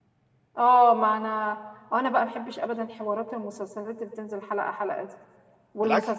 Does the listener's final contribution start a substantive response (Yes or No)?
No